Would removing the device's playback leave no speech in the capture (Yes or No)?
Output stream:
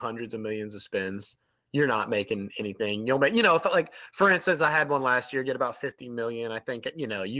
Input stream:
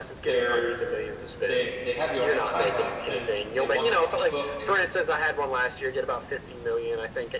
No